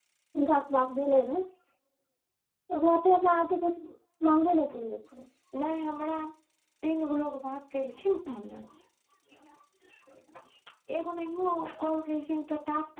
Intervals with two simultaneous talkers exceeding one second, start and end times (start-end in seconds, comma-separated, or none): none